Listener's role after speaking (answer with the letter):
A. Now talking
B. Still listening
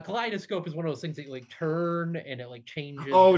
A